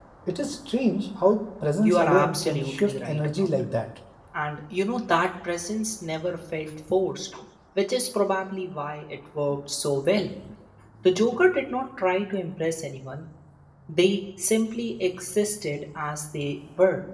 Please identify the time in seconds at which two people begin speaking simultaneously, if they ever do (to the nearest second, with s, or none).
2 s